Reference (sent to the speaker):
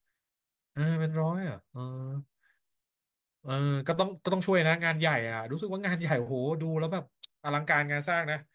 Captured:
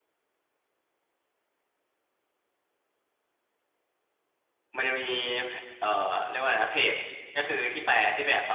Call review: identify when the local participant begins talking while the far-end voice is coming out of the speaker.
4.8 s

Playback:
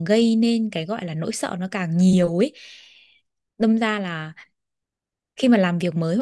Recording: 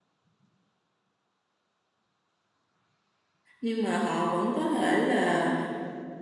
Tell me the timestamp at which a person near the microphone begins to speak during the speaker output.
3.6 s

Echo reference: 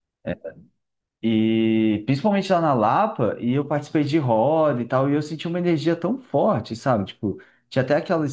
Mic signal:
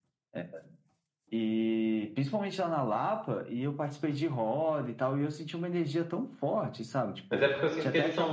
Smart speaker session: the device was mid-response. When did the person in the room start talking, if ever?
7.3 s

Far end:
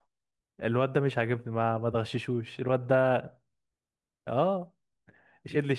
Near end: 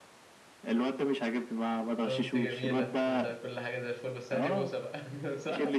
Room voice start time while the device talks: 2.0 s

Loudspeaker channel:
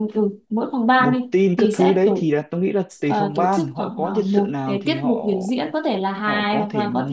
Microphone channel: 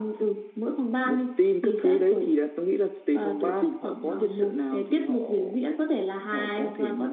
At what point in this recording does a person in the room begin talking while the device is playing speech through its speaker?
none

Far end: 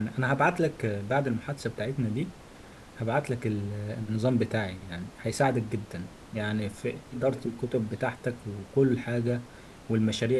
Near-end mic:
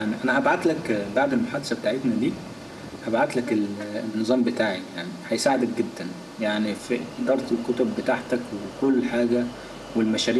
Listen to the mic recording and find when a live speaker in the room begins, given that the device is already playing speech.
none

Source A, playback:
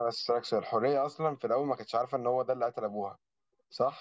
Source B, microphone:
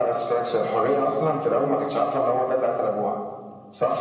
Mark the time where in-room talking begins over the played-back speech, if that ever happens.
1.5 s

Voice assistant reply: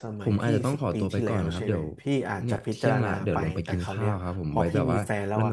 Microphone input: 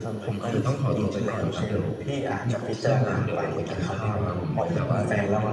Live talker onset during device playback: none

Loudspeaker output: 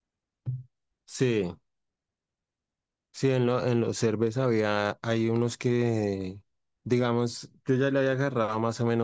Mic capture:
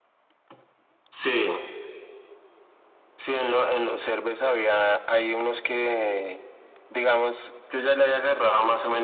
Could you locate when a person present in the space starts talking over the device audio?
none

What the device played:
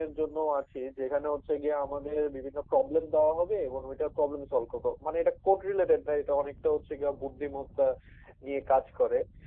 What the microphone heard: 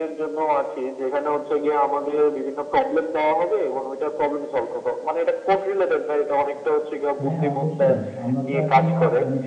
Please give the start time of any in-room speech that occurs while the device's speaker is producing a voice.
7.2 s

